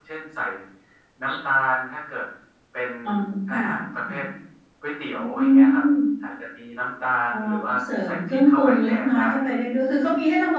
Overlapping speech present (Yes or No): Yes